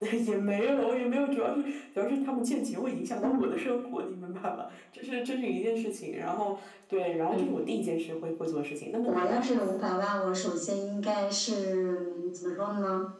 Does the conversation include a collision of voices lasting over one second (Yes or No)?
No